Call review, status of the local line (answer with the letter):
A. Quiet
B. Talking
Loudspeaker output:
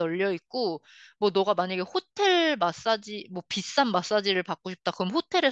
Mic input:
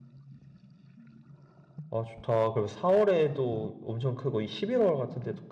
B